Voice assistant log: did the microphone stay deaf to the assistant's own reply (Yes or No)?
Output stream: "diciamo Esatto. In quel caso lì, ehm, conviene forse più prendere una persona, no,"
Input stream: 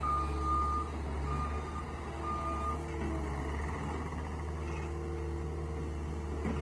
Yes